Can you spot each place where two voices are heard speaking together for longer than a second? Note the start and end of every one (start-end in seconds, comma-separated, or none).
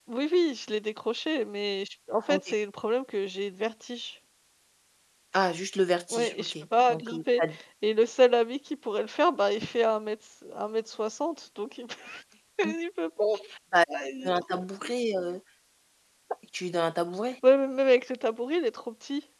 6.1-7.4